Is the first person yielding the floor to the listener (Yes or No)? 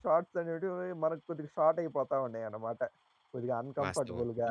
Yes